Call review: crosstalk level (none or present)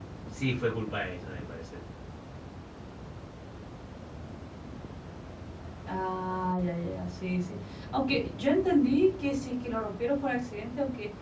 none